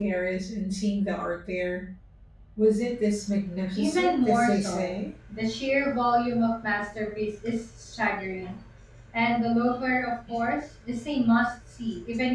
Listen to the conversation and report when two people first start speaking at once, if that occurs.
3.8 s

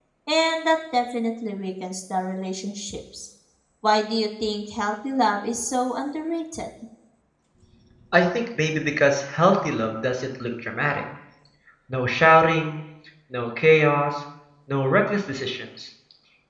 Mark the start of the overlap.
none

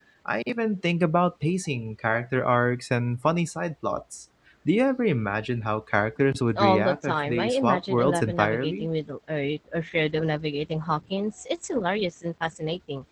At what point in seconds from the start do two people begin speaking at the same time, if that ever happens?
6.6 s

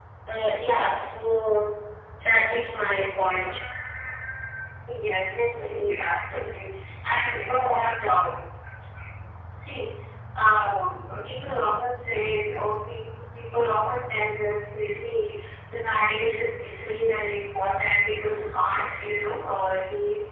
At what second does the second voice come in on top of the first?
none

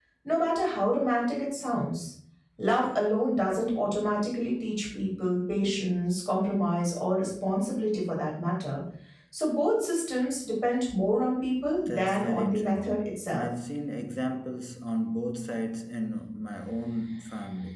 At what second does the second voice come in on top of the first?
11.8 s

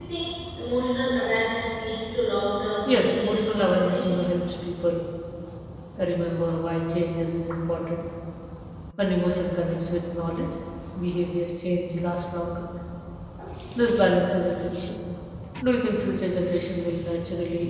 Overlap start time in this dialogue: 2.9 s

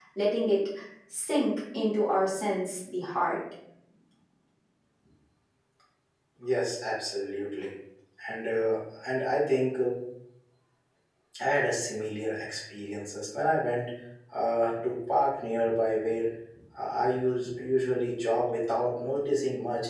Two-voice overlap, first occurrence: none

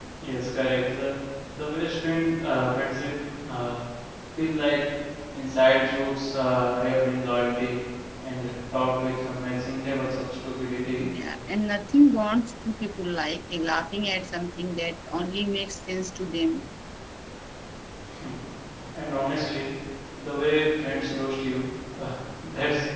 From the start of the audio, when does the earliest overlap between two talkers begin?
none

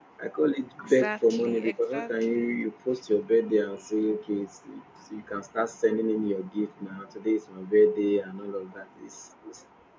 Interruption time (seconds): 0.8 s

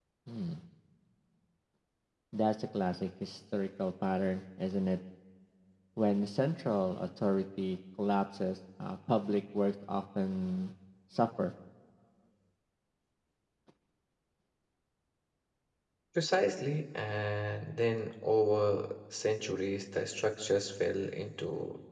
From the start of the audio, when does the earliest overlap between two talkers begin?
none

